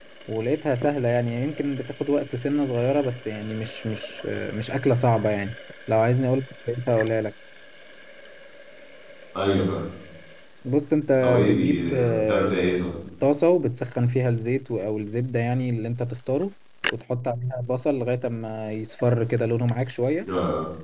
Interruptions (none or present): present